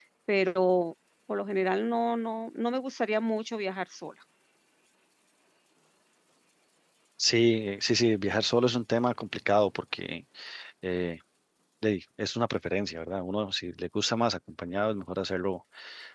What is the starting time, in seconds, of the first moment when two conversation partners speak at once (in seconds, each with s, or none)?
none